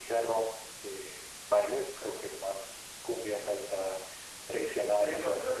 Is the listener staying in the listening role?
No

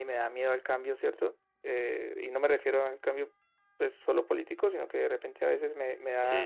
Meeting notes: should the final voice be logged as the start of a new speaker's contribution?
No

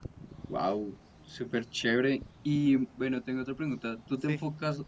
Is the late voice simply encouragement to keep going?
Yes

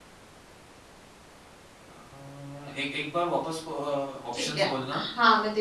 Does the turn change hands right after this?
Yes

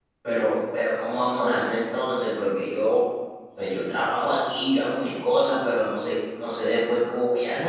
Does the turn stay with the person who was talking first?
No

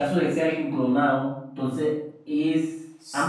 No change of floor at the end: No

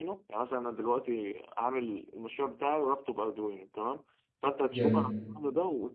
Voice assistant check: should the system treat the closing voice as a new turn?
No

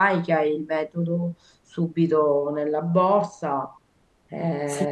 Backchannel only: No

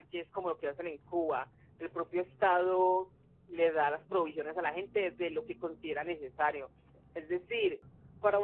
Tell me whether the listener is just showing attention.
Yes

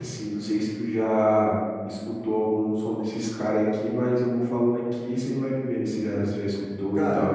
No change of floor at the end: No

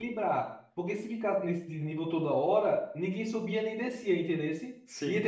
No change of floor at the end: Yes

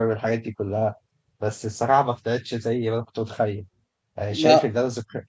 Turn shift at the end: No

